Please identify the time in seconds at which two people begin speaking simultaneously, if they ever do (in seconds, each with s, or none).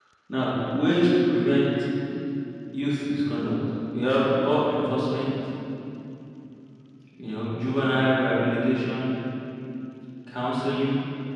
none